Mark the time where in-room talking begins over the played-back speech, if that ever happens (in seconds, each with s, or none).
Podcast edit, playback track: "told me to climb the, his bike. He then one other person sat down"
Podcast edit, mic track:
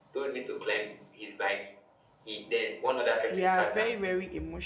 3.3 s